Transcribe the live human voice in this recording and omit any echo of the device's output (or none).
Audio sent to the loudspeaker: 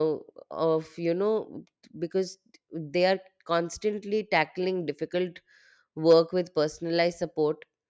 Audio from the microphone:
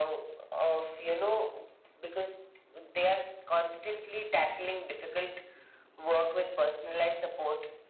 none